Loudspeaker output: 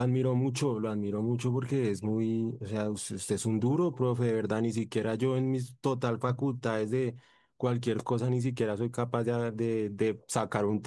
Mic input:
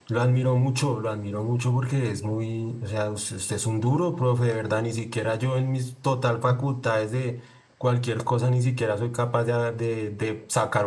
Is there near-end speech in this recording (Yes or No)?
No